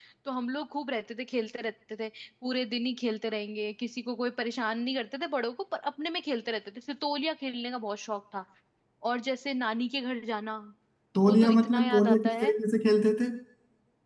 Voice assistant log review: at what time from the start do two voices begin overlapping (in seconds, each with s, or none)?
11.2 s